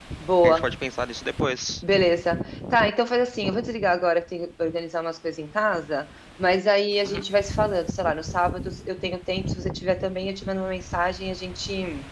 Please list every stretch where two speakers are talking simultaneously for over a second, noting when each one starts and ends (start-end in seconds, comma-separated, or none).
none